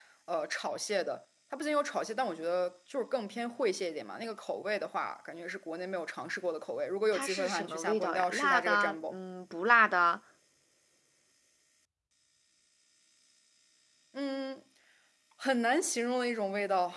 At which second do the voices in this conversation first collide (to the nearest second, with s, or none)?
7 s